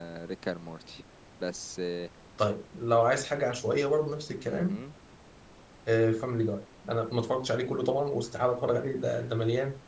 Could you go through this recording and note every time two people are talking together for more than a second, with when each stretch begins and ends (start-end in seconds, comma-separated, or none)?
none